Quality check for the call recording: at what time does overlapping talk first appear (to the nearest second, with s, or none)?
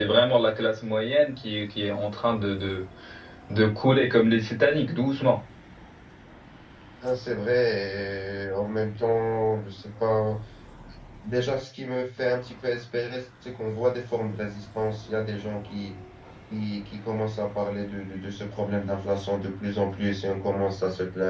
none